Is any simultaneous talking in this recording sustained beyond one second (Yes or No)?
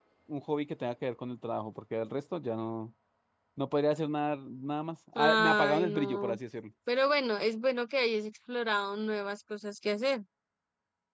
Yes